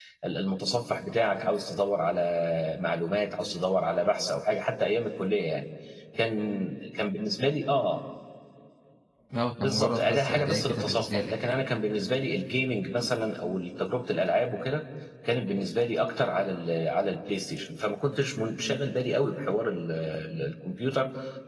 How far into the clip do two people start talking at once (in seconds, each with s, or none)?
9.6 s